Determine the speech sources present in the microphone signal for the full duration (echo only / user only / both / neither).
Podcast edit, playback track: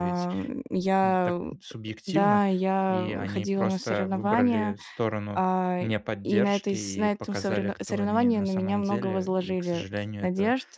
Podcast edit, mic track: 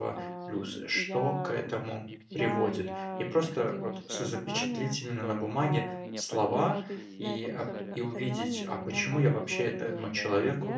both